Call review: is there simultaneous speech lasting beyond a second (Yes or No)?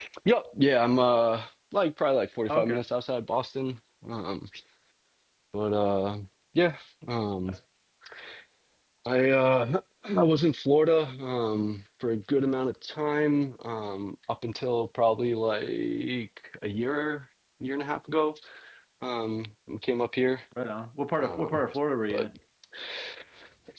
No